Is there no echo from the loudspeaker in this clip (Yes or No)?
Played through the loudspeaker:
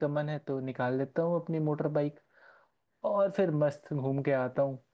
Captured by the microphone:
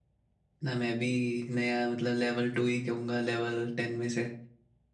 Yes